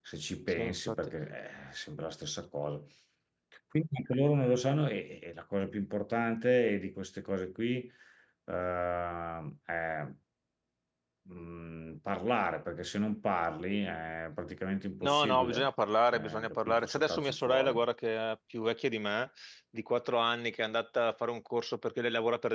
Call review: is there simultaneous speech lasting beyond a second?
Yes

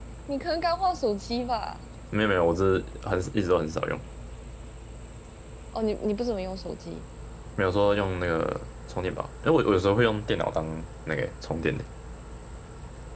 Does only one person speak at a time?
Yes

